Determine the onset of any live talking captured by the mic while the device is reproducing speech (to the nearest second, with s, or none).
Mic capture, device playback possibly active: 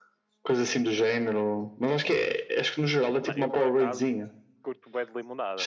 3 s